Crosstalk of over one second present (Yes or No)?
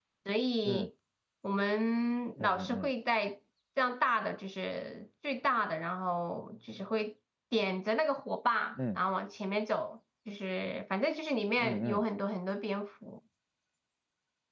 No